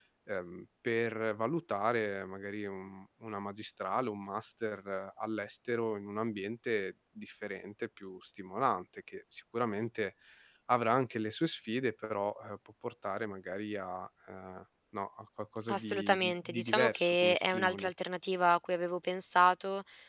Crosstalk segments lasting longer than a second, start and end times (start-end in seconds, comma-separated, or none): 15.7-17.9